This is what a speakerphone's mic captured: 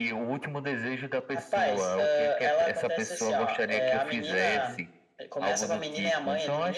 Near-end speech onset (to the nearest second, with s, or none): none